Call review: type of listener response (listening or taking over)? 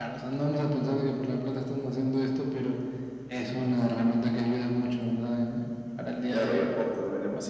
taking over